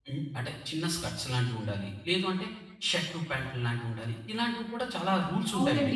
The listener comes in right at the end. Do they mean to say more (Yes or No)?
Yes